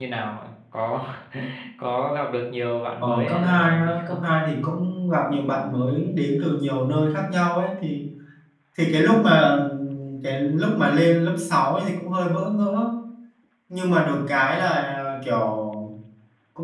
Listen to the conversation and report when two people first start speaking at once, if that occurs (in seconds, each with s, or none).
3.0 s